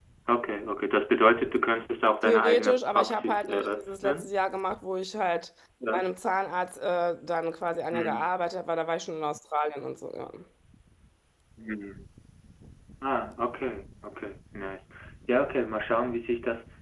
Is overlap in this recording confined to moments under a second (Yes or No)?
No